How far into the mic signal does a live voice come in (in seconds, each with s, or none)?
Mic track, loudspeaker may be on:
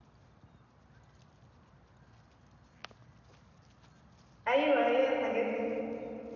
4.5 s